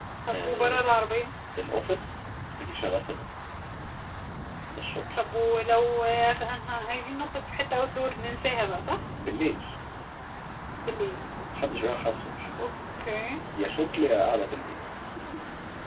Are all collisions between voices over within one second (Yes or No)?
Yes